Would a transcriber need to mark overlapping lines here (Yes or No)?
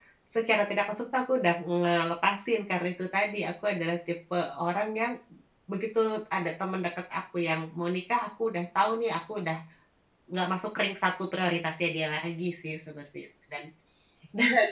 No